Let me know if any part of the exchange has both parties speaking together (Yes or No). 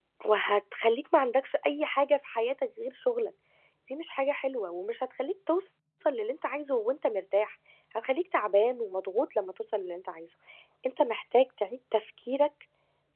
No